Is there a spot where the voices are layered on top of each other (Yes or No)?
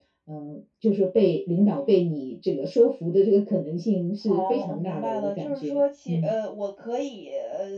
Yes